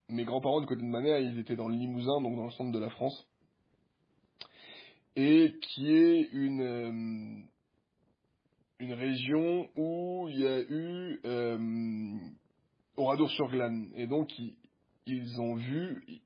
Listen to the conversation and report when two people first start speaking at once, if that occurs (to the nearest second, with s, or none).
none